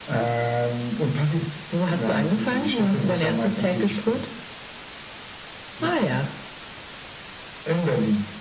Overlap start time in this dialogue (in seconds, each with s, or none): 1.7 s